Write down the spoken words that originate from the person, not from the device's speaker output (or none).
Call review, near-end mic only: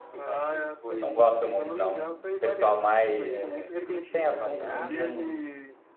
Não gosto muito, não. Um Pessoal mais sem assunto, assim, que não.